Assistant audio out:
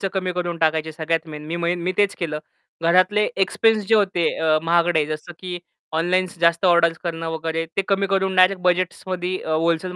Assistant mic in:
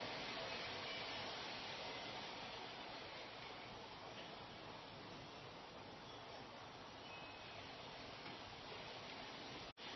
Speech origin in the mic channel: neither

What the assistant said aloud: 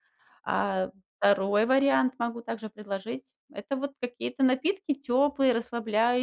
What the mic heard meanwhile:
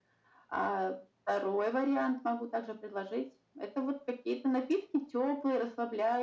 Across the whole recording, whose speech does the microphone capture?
echo only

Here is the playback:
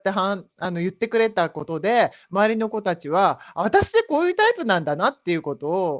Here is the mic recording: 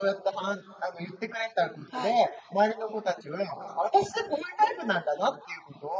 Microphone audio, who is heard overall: both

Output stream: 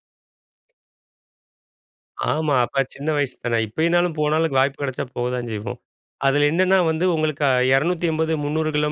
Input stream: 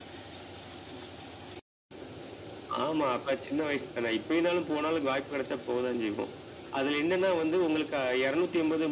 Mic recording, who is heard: echo only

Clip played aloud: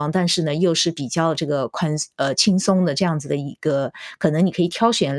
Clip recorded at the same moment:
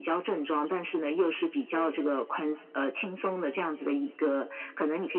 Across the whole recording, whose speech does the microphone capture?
both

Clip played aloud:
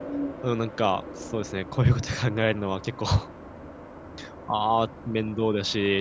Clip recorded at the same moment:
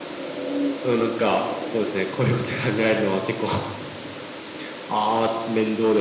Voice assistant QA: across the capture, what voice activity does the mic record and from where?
echo only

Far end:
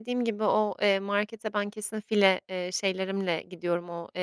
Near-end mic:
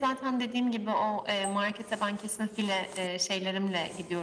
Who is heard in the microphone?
echo only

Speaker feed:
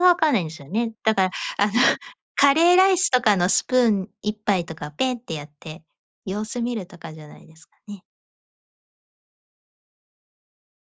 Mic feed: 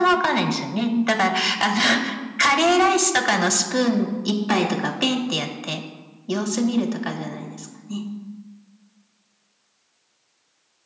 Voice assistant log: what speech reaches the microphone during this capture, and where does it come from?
echo only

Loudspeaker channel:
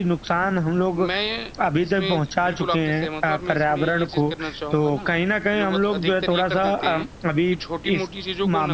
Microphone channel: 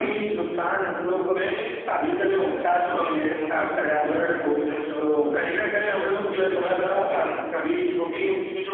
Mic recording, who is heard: echo only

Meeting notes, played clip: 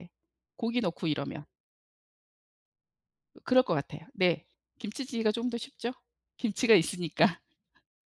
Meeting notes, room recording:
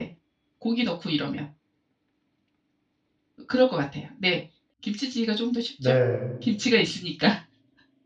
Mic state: both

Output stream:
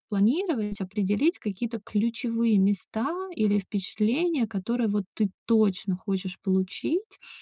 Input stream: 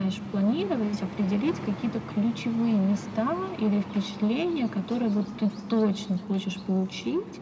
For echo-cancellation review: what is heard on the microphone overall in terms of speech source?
echo only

